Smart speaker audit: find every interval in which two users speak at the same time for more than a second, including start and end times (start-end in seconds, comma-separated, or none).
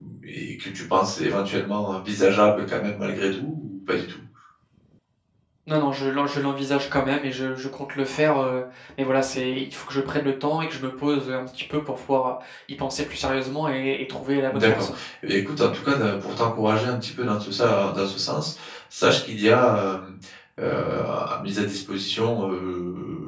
none